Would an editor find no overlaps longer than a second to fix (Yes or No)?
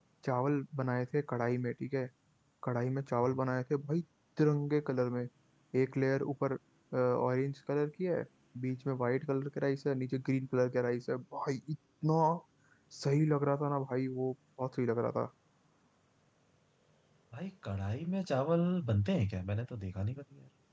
Yes